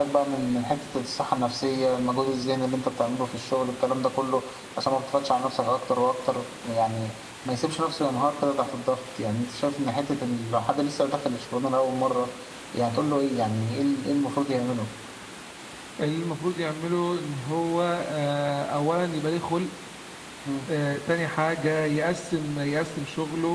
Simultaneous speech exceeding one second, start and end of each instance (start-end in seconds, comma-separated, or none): none